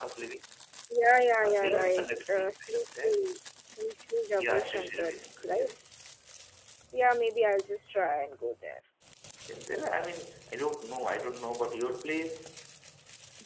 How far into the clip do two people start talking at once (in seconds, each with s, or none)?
1.4 s